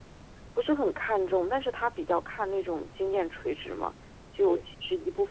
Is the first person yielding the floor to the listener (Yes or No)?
No